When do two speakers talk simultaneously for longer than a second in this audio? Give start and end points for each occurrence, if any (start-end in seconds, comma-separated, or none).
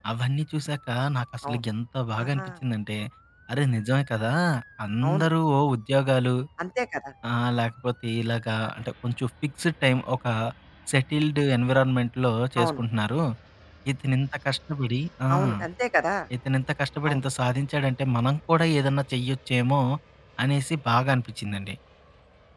none